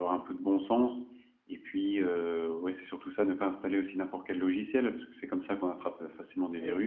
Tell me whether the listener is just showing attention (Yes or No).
No